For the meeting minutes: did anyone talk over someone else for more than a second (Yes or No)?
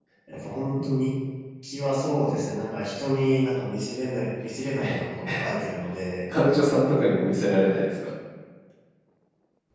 No